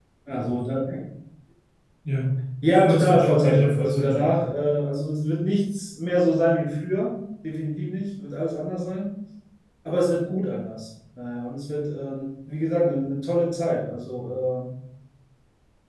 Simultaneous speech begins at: 2.7 s

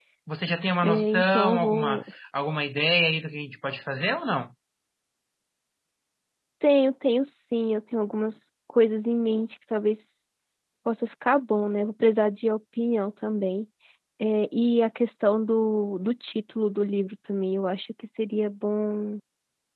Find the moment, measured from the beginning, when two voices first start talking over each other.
0.8 s

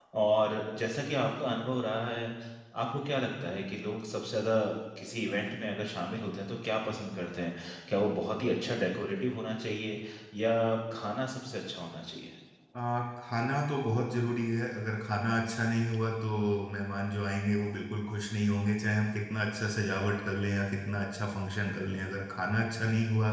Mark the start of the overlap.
none

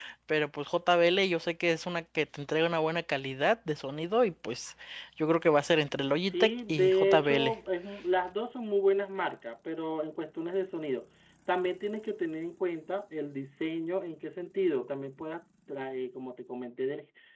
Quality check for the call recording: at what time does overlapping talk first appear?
6.3 s

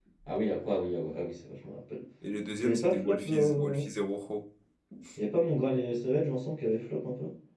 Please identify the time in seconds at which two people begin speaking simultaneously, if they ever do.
2.6 s

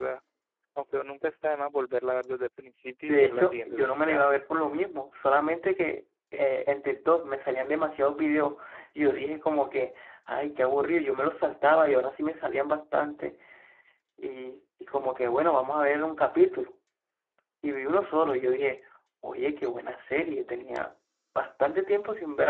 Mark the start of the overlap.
3.0 s

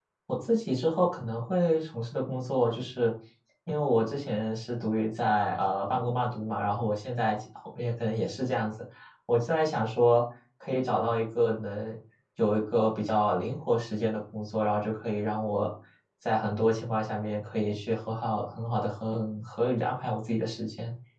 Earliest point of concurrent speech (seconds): none

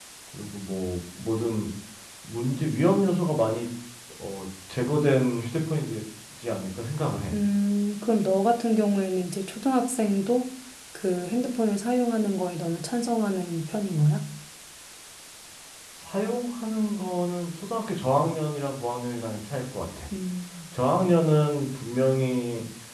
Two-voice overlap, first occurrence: none

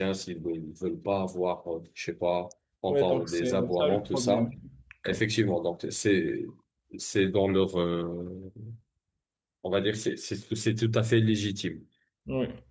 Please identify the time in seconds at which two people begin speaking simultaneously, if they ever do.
2.9 s

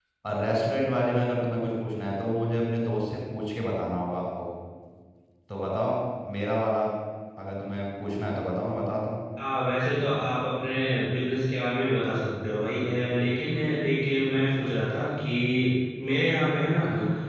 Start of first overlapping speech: none

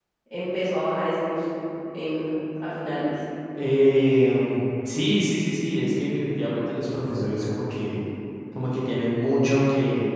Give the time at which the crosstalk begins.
none

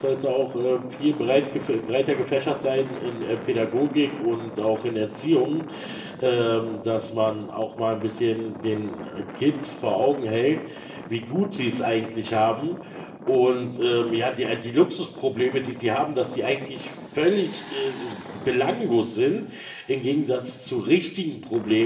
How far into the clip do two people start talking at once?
none

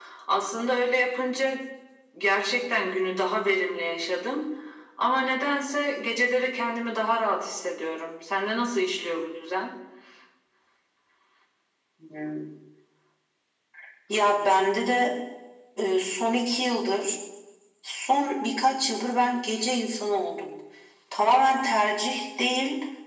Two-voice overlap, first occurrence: none

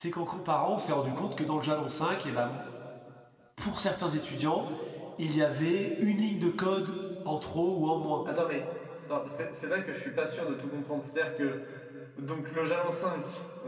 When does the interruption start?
none

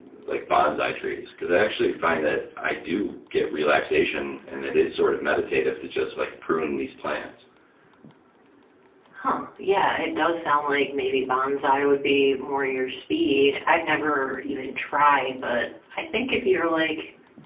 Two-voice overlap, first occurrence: none

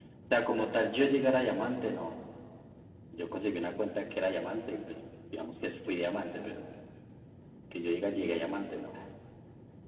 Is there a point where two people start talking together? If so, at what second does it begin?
none

